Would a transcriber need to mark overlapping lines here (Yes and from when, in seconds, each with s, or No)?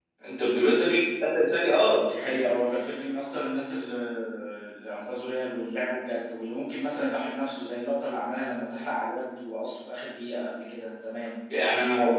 No